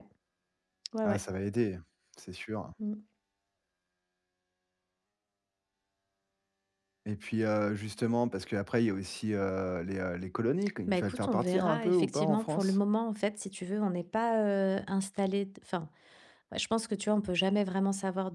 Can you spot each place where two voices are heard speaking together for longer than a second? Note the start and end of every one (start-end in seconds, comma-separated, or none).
10.9-12.8